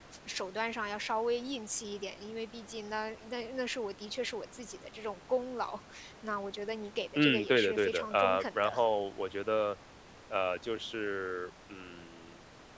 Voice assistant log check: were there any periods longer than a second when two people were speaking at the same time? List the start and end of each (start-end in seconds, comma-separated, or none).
7.2-8.7